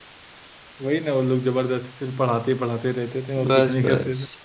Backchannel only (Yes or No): No